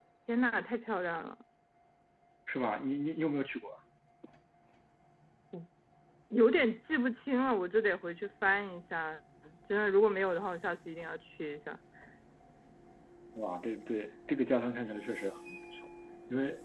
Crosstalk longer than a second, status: none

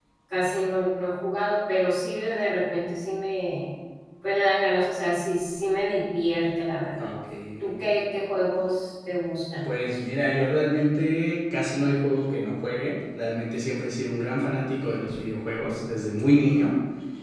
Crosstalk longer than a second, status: none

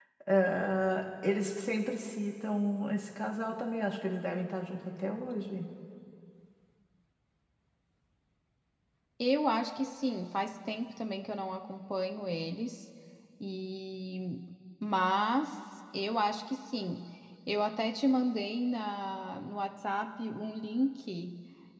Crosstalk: none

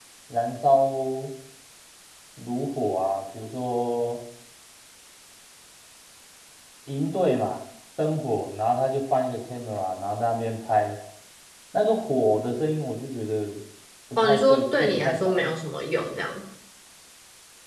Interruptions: present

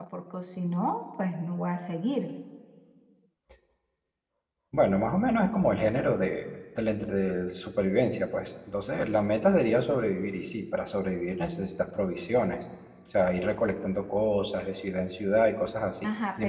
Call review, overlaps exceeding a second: none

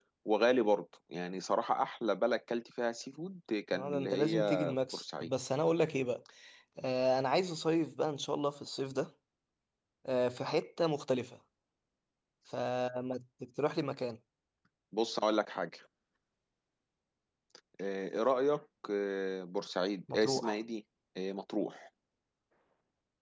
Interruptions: present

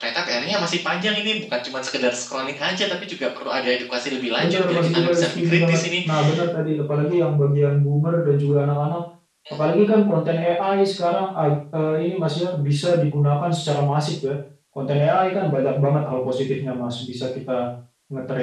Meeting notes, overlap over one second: present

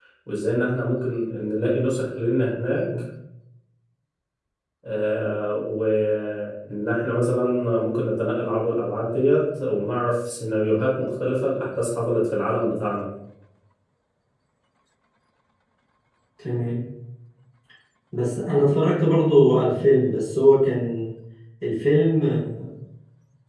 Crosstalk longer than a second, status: none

